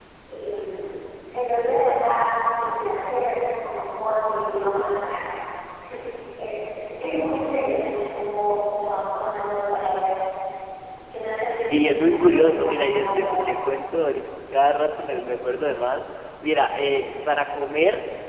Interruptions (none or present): present